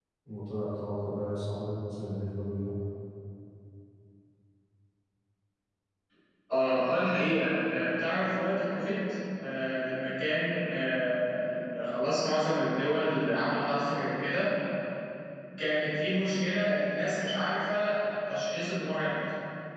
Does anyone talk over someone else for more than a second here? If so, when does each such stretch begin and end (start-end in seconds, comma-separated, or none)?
none